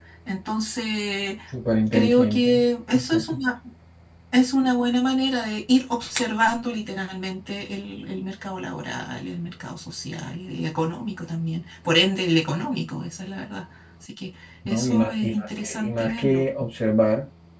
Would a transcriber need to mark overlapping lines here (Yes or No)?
Yes